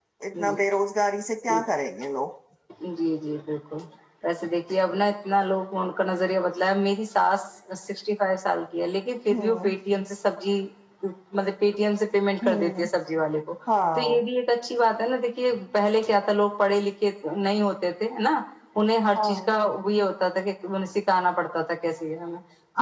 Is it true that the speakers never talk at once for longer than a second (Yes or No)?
Yes